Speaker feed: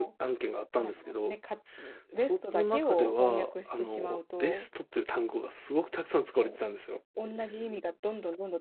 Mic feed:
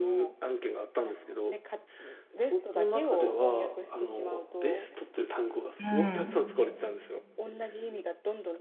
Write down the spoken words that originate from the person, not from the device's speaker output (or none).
うん。